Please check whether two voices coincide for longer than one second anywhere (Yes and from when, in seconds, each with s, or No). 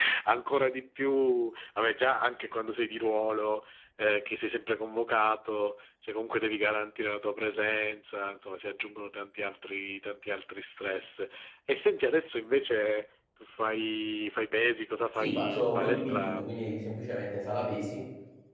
Yes, from 15.2 s